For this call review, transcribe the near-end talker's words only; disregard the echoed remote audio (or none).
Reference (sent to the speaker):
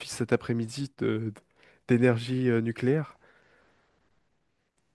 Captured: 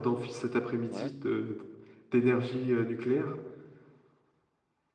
Ouais.